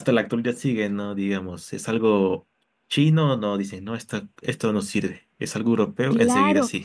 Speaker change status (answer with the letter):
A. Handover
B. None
A